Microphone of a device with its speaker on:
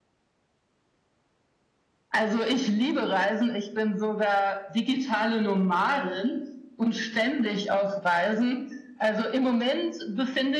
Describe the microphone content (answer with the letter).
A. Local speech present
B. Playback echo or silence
B